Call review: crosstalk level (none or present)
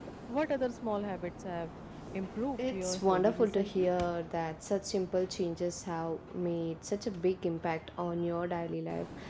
present